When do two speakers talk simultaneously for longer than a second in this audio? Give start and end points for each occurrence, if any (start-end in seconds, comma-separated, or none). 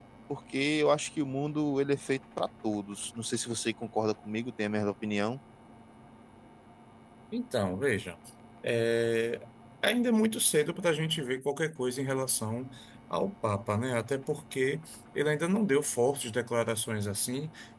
none